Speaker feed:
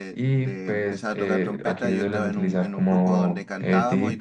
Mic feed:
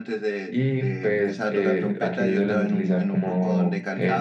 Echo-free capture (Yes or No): No